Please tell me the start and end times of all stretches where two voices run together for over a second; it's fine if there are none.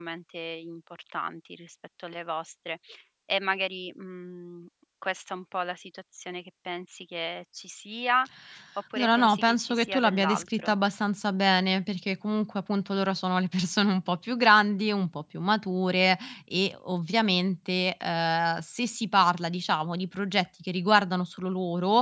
9.0-10.7

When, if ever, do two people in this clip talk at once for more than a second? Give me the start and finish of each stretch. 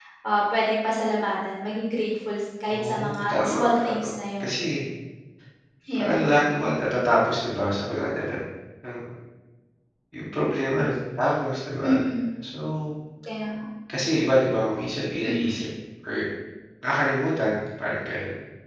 2.7-4.0

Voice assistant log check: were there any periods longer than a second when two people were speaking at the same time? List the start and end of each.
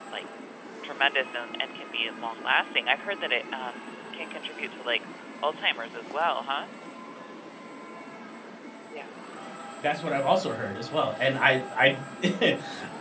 none

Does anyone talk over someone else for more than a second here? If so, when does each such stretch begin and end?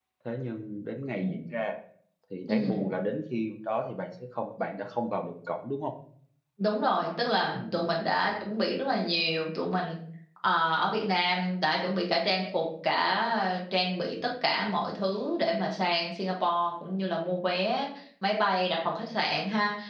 none

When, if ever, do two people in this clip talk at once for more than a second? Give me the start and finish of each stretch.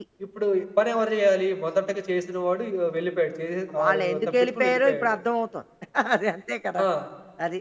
3.8-5.2

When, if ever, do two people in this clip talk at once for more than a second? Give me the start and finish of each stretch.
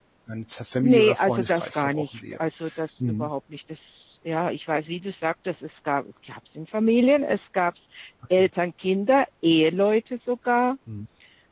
0.8-2.4

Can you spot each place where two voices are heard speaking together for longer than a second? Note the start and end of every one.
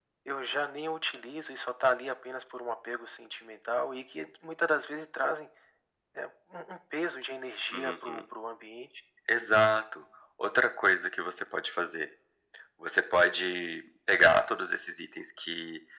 none

